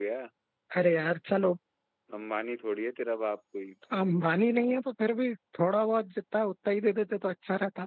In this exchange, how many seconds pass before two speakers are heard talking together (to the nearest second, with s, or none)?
none